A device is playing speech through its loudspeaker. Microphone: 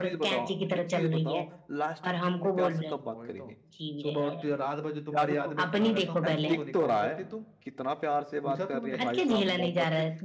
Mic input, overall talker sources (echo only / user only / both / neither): both